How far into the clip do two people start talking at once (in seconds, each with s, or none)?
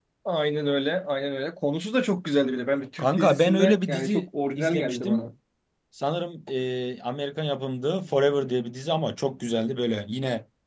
3.0 s